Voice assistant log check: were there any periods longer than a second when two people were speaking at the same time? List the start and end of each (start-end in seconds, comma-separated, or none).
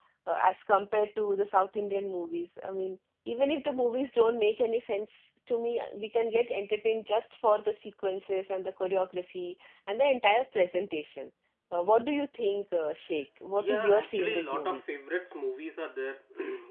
13.6-14.8